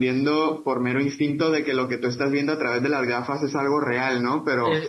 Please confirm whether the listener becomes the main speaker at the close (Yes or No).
Yes